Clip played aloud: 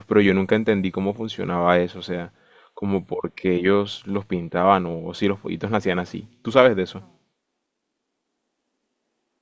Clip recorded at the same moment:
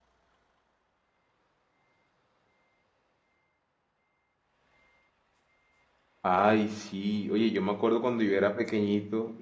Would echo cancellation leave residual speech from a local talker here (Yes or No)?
Yes